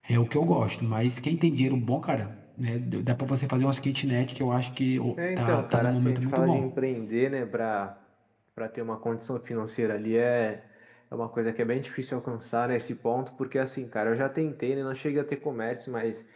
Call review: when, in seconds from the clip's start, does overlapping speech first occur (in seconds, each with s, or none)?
5.2 s